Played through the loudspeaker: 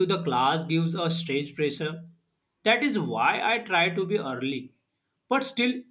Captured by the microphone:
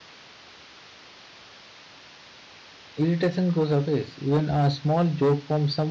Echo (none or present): none